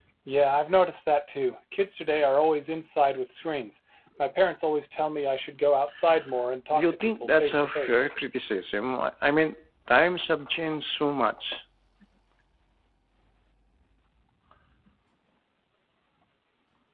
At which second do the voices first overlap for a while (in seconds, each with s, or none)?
6.7 s